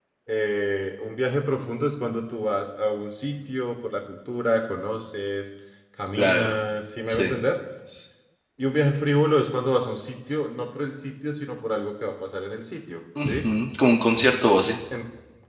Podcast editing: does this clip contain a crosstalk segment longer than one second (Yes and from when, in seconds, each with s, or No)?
No